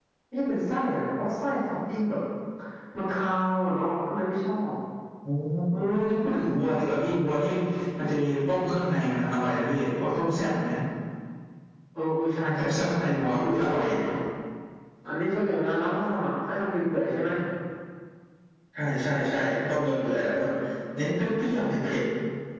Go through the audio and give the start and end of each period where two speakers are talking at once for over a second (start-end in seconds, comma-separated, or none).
12.6-13.8